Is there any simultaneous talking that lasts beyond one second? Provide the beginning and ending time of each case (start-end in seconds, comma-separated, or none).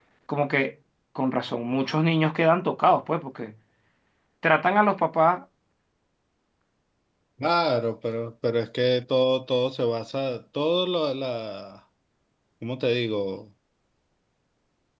none